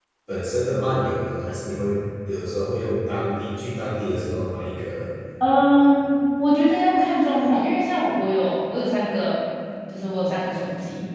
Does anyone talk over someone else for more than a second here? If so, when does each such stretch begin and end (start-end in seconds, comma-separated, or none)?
none